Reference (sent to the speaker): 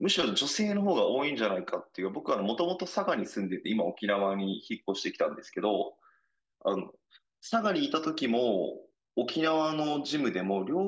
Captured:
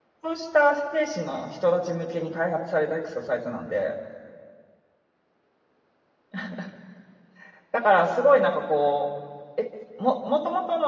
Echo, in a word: none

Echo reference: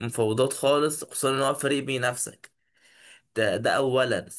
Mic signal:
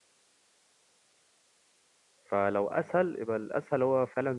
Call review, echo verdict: none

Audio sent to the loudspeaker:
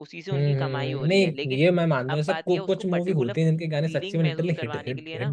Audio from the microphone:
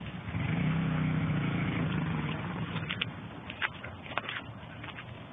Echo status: none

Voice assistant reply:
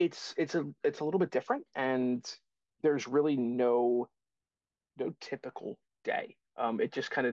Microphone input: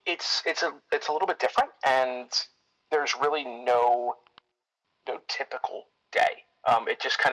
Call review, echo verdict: present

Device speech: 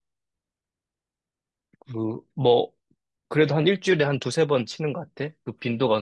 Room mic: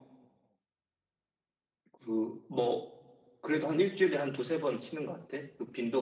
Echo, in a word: present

